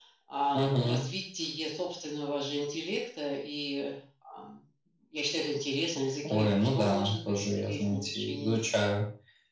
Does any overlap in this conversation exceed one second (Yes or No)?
Yes